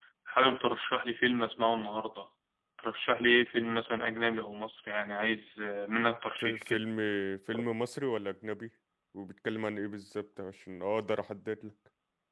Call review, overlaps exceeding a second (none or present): none